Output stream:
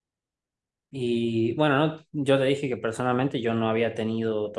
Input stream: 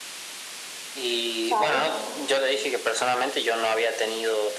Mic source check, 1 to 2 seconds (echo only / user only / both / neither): both